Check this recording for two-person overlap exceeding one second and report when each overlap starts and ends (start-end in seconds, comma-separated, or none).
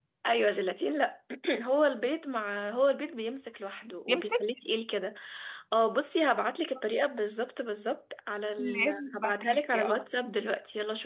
8.6-10.0